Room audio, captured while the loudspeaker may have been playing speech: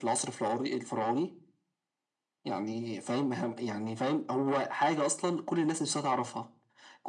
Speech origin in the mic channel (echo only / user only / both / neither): echo only